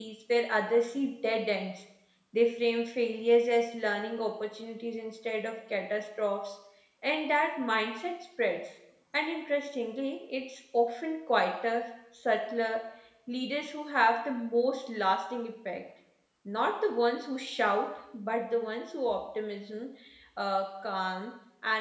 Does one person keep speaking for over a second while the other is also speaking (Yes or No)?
No